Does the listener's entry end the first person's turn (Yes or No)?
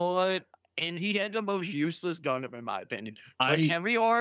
No